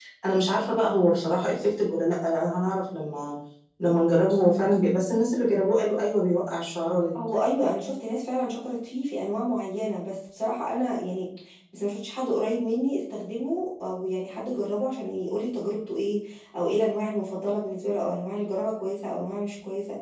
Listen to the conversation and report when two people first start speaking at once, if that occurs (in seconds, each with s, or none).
none